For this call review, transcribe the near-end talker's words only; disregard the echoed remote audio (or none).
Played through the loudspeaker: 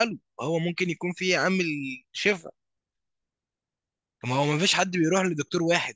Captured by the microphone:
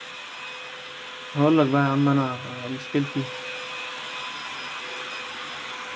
هقول لك بقى يا عم انا مشكلتي